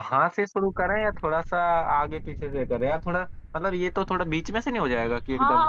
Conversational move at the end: taking over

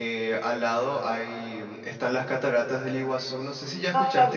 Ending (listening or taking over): taking over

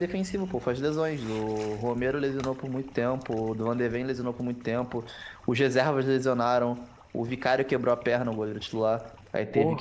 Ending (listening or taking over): listening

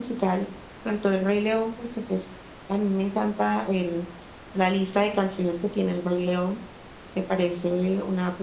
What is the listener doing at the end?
listening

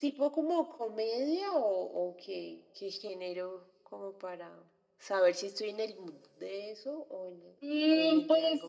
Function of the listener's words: taking over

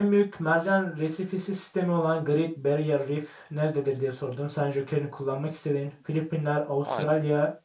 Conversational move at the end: listening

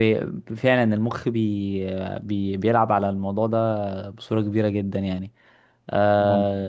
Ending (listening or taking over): listening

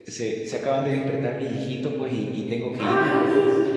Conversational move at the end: listening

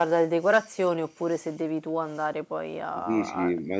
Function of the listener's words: taking over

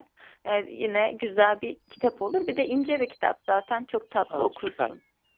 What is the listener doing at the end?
taking over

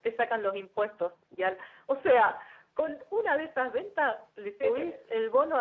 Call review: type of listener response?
listening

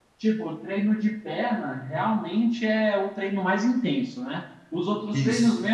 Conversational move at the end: listening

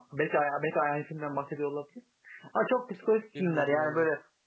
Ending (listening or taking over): listening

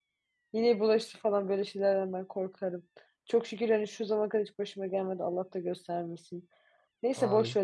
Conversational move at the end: listening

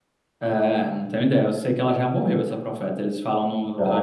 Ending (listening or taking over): taking over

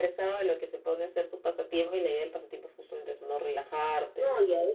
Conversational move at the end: taking over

